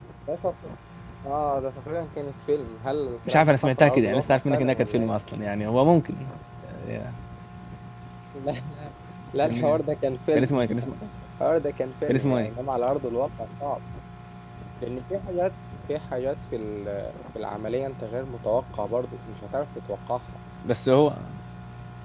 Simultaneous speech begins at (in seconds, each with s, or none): 3.3 s